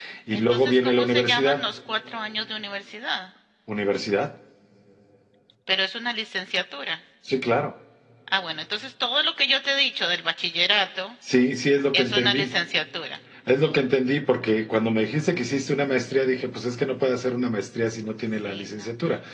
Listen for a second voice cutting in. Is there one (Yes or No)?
Yes